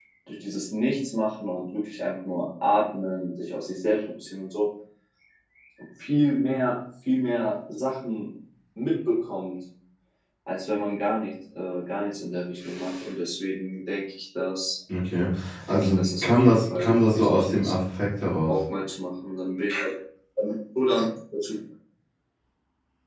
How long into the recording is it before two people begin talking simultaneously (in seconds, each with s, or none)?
15.7 s